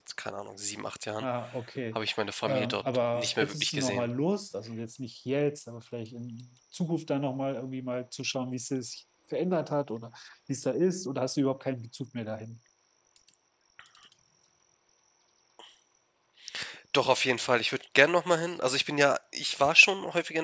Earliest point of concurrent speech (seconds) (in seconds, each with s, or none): 2.4 s